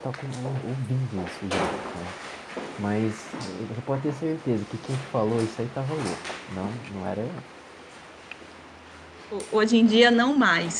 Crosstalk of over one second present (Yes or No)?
No